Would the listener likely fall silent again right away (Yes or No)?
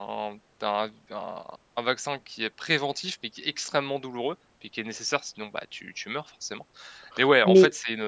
Yes